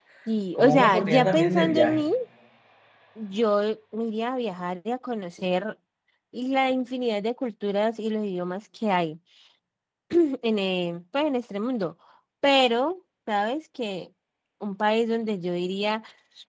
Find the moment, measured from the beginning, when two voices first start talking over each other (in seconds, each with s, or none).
0.6 s